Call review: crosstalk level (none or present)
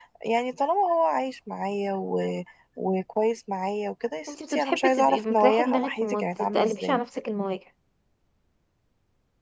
present